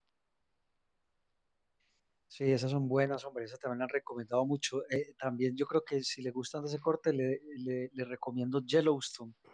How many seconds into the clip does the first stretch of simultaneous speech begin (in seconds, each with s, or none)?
none